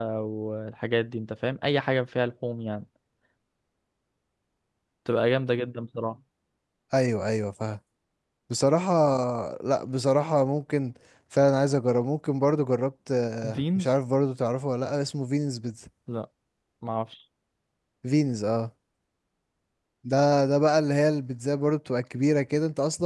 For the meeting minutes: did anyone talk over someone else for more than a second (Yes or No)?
No